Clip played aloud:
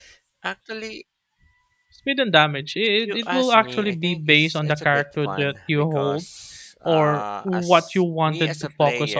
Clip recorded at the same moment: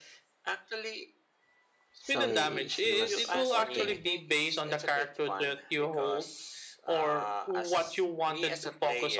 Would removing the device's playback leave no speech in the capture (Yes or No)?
No